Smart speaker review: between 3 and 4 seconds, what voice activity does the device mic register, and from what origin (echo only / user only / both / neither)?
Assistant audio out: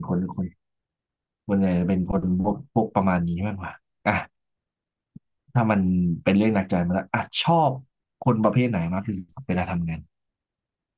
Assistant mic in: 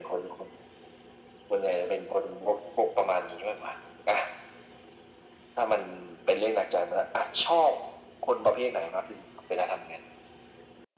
echo only